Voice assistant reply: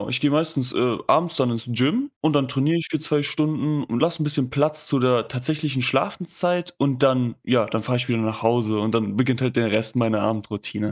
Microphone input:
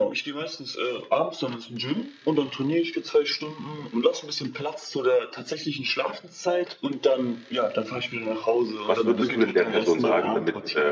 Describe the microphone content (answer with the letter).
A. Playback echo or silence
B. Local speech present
B